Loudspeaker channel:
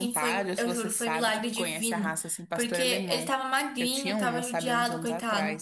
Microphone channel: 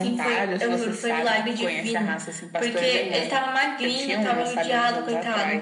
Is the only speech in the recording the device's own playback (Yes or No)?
Yes